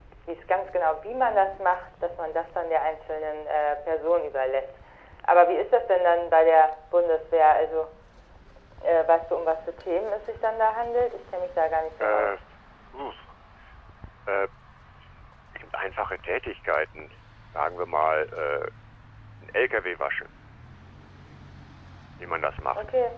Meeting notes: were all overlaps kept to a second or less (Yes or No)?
Yes